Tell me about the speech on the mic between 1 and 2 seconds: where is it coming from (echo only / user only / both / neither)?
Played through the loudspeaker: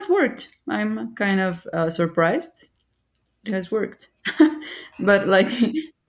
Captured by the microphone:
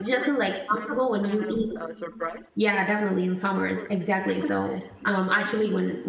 both